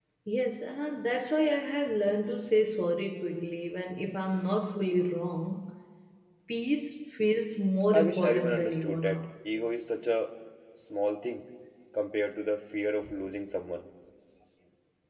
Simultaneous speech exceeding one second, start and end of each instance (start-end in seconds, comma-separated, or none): 7.9-9.2